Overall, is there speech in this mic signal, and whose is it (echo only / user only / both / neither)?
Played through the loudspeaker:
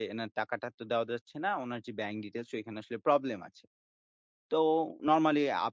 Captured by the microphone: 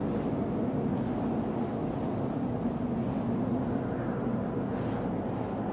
neither